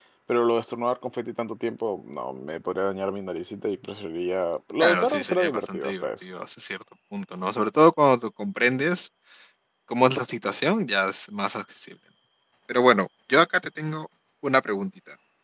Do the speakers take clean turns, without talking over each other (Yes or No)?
No